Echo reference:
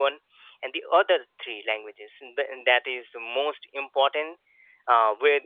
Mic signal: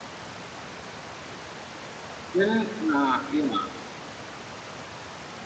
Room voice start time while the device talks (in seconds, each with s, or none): 2.3 s